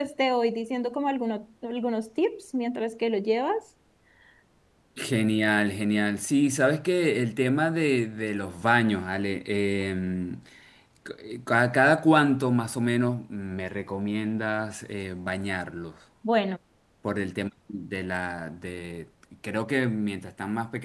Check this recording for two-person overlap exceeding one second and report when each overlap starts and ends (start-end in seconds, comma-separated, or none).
none